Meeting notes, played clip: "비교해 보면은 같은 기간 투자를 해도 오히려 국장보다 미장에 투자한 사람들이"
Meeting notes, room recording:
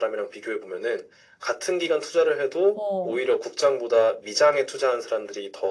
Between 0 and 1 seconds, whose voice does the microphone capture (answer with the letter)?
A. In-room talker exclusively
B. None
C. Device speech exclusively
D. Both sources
C